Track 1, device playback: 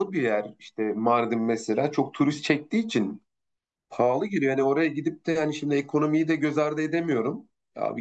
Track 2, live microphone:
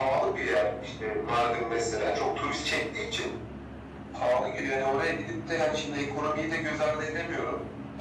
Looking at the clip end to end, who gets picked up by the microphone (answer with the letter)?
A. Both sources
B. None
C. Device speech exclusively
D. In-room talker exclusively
C